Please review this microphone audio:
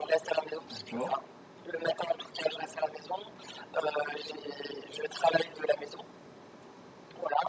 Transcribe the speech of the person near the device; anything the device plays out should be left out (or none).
D'accord,